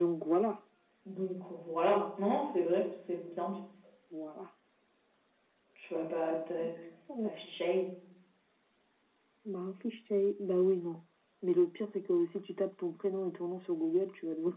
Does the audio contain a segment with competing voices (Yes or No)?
No